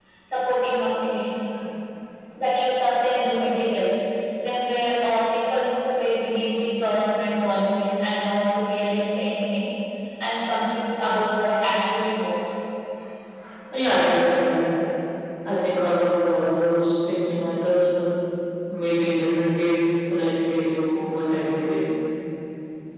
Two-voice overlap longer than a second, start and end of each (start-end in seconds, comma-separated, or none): none